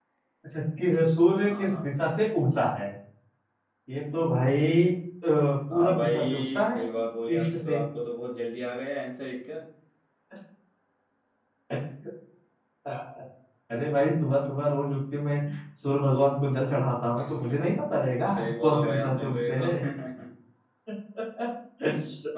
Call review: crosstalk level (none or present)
present